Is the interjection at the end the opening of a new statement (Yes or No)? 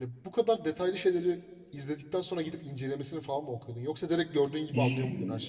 Yes